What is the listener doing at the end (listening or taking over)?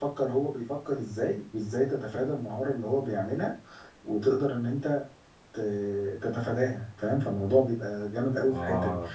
listening